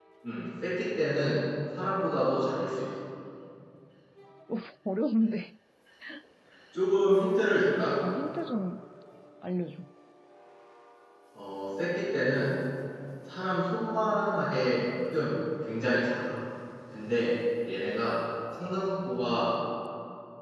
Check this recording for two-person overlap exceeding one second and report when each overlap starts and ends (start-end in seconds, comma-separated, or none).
none